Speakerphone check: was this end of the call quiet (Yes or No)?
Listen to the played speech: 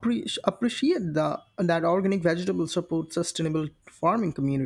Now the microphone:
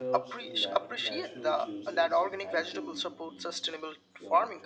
No